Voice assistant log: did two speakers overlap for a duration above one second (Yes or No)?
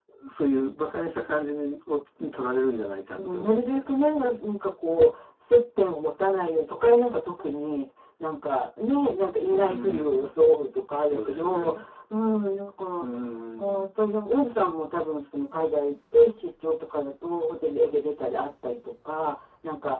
Yes